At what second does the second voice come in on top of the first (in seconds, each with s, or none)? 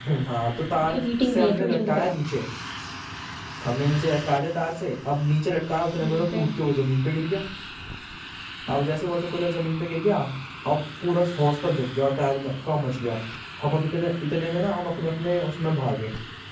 0.9 s